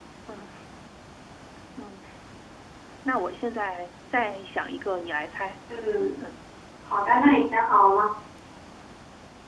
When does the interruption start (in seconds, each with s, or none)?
none